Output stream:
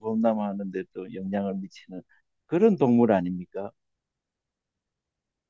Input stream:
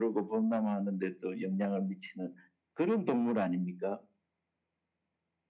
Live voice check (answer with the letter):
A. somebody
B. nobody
B